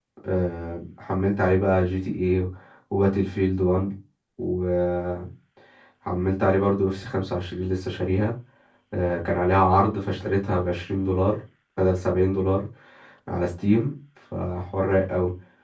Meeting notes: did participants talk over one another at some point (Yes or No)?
No